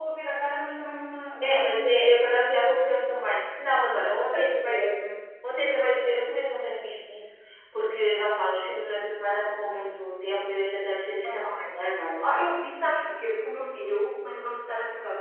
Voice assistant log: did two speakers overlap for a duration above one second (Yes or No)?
No